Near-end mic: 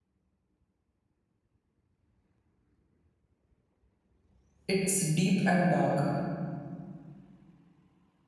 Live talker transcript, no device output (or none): It's deep and dark.